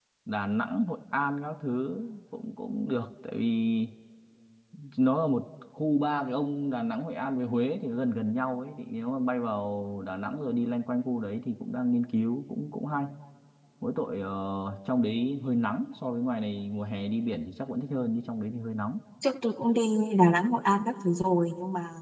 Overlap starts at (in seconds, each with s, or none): none